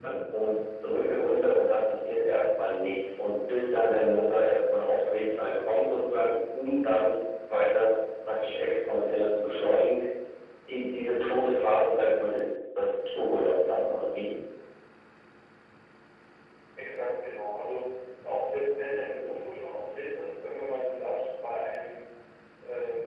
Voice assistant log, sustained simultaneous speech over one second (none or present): none